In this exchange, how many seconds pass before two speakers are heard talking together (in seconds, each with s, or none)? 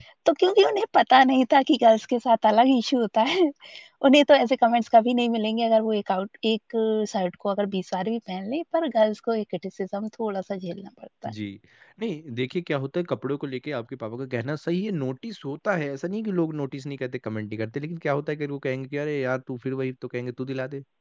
none